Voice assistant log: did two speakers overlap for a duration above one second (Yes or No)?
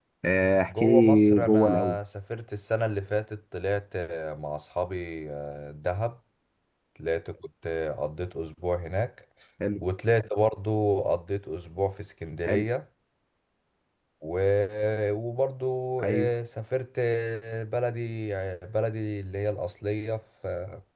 Yes